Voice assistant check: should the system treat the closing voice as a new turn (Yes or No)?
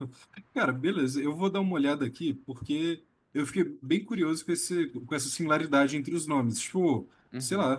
No